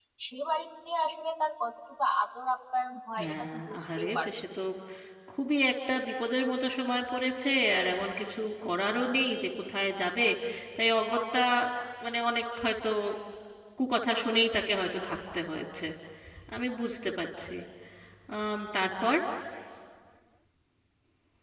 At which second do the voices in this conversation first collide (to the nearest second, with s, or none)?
3 s